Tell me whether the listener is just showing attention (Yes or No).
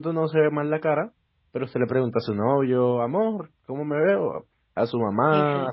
Yes